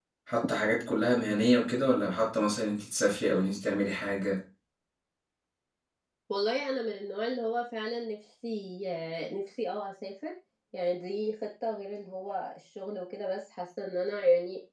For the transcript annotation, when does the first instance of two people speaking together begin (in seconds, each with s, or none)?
none